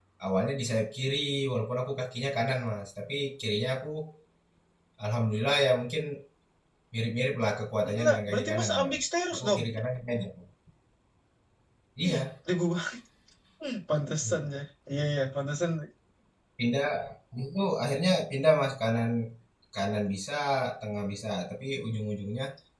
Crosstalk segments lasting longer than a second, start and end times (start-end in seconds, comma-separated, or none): 7.8-9.6